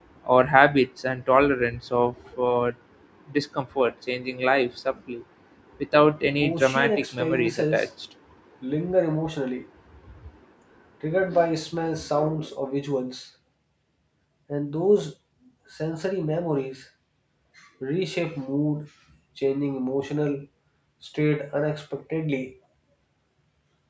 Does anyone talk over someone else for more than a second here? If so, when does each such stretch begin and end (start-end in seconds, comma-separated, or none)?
6.4-7.9